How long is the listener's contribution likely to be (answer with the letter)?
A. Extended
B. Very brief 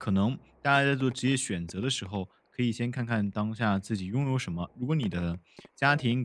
B